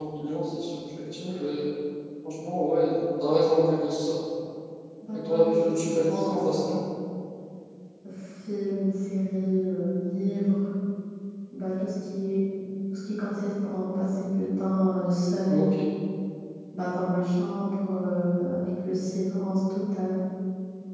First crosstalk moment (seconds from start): 5.1 s

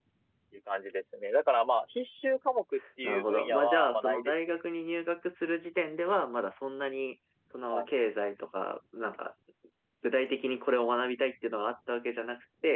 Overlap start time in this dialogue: 3.0 s

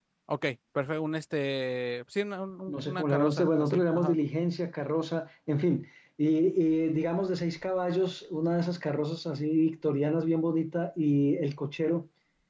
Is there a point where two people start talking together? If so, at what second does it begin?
2.7 s

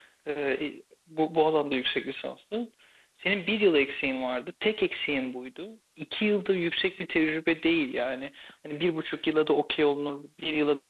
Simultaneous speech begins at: none

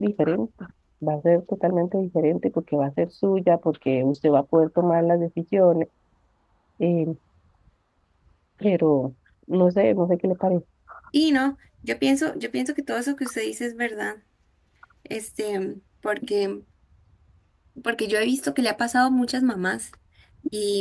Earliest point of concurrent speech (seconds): none

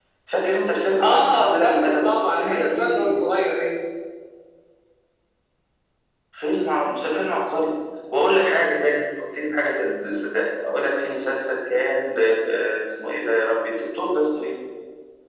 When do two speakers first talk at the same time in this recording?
1.0 s

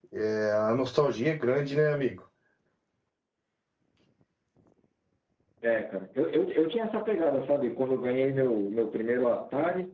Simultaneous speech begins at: none

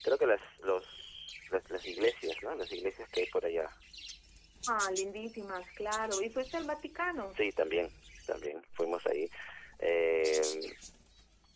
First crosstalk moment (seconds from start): none

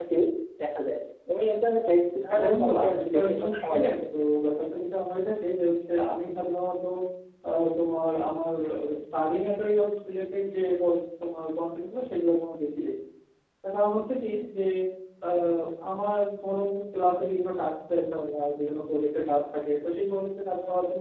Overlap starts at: 2.3 s

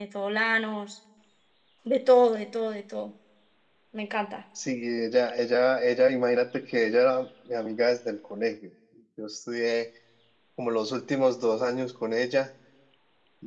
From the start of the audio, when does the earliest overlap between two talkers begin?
none

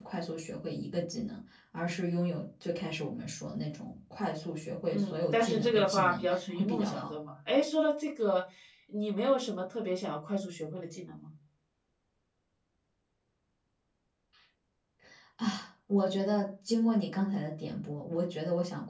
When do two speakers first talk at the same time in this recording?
4.9 s

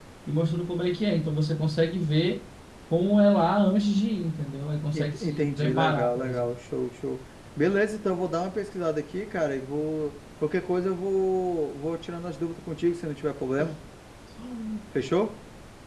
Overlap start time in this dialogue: 4.9 s

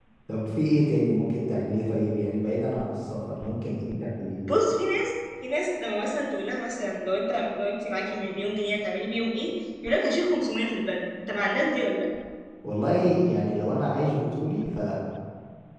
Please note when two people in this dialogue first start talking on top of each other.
none

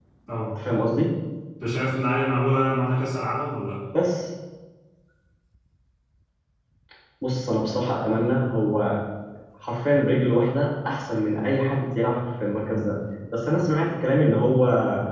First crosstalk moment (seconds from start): none

